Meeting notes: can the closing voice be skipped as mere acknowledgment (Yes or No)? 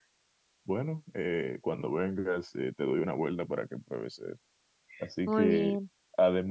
Yes